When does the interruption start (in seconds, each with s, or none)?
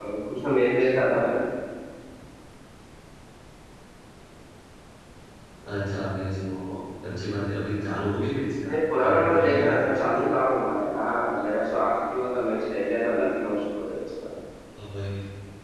8.7 s